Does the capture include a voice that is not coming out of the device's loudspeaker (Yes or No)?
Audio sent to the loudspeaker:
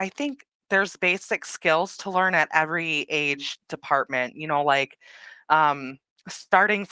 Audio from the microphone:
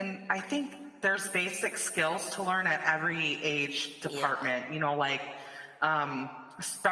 Yes